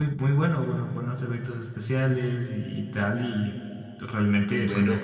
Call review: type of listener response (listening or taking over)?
taking over